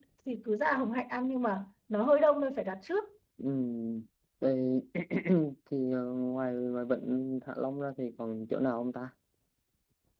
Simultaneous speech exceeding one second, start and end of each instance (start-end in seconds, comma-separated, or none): none